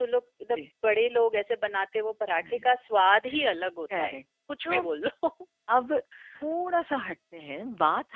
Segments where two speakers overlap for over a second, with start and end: none

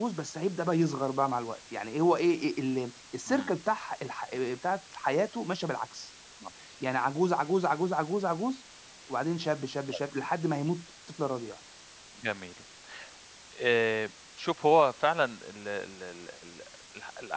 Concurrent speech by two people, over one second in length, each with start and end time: none

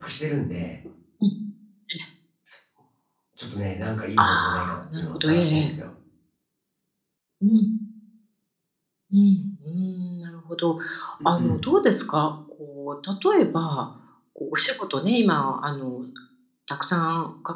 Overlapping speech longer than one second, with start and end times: 4.2-5.7

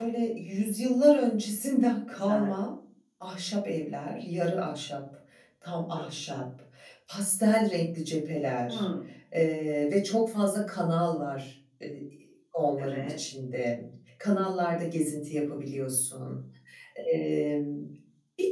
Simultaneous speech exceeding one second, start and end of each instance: none

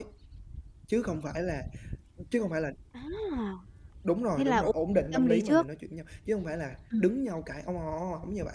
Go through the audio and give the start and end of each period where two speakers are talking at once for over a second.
none

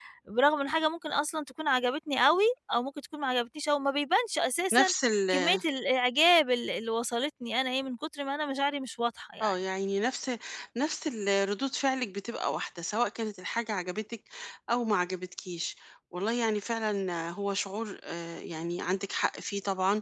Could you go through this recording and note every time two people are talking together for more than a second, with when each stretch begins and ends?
none

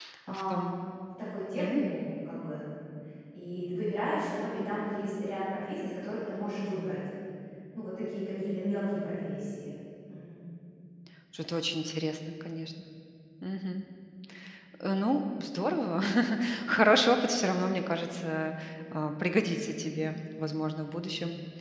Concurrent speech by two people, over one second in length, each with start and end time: none

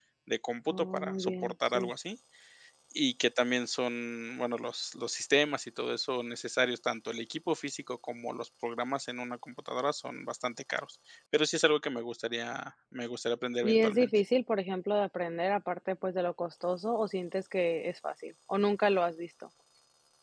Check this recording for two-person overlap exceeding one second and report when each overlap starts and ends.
0.7-1.9

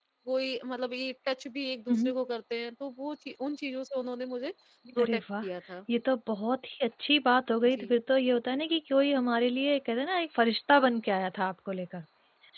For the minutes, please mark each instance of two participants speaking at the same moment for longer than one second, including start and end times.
none

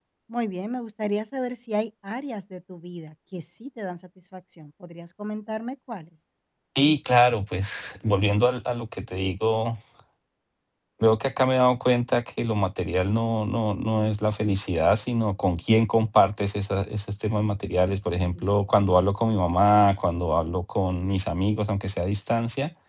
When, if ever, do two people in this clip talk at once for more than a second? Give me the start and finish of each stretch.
none

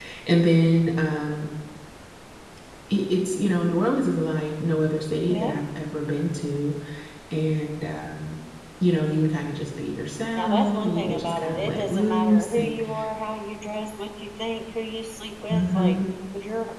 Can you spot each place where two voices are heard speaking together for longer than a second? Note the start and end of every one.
10.3-12.8

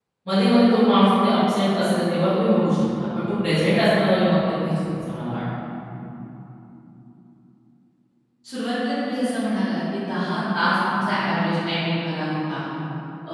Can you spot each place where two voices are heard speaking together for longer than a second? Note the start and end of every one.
none

